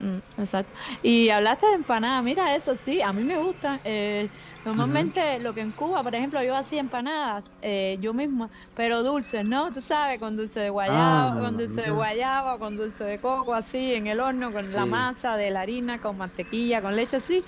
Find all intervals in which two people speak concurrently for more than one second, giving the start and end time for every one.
10.9-12.1

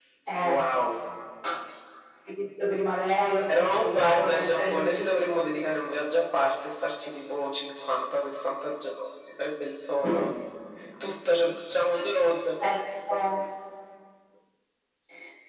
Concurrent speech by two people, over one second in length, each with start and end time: 3.5-5.5

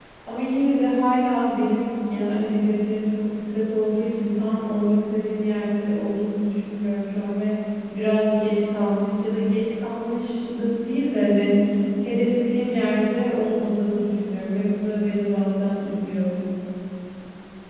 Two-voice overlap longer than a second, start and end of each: none

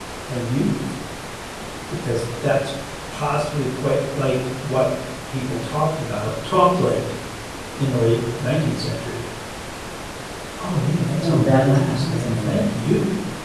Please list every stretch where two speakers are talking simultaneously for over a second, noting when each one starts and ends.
11.2-12.6

